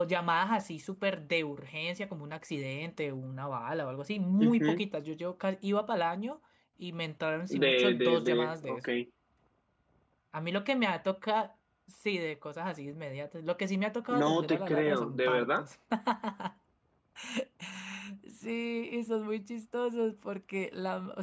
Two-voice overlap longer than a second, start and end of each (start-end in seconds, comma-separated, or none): 7.6-8.9, 14.1-15.6